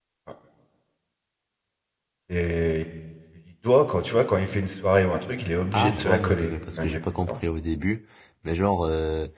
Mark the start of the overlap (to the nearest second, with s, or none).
6 s